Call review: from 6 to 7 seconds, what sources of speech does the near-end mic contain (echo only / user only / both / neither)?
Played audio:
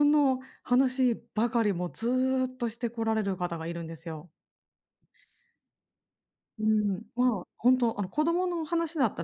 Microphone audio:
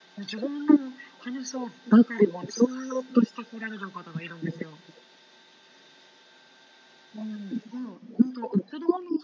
neither